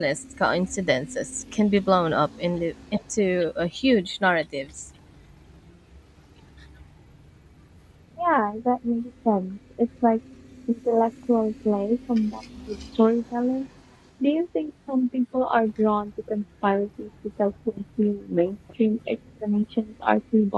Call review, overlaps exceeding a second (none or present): none